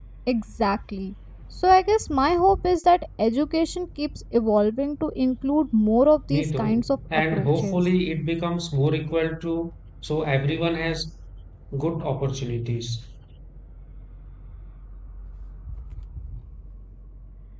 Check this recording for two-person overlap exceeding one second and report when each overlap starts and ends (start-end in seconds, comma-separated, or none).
6.3-7.8